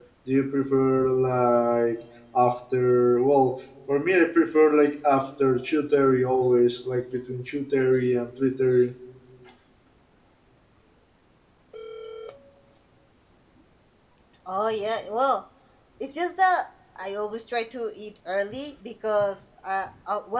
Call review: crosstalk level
none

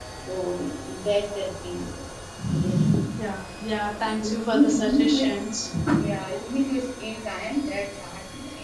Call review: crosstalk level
present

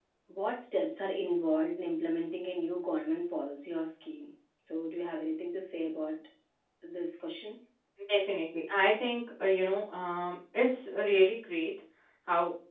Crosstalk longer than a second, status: none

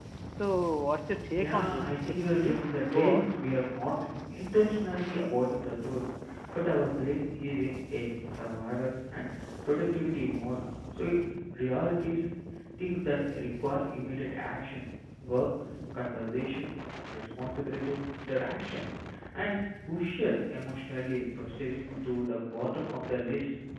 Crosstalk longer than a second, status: present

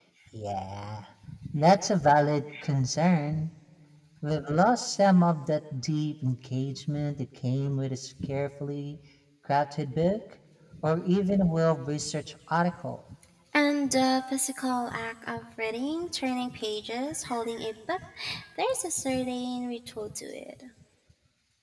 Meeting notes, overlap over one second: none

